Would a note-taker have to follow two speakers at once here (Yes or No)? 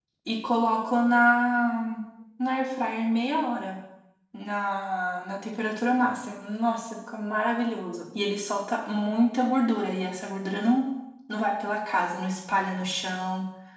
No